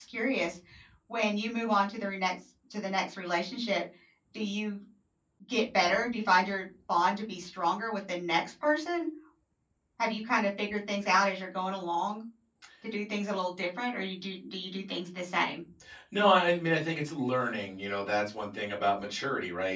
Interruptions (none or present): none